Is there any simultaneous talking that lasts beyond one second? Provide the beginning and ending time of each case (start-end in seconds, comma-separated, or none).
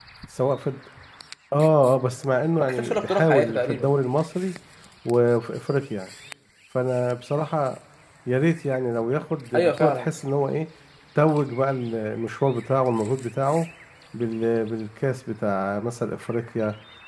2.6-3.9